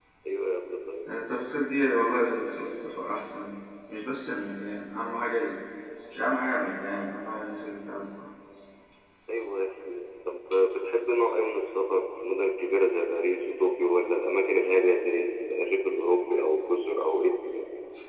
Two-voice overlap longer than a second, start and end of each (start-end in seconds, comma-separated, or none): none